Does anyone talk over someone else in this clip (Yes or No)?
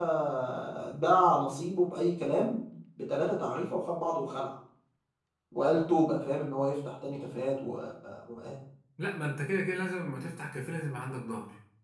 No